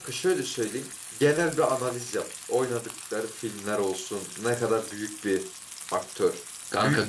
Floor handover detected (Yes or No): Yes